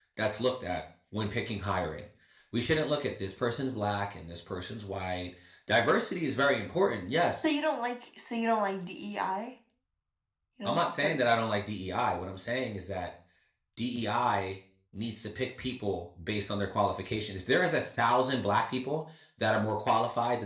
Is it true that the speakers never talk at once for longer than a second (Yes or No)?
Yes